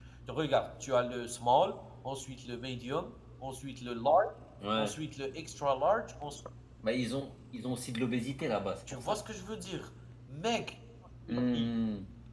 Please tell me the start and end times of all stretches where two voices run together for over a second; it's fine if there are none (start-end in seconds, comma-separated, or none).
none